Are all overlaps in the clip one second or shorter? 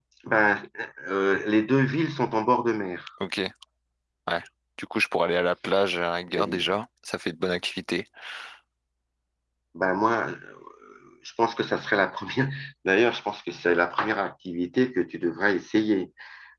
Yes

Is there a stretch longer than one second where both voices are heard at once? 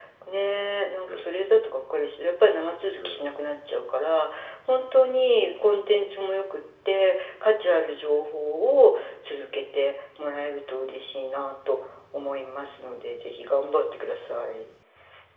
No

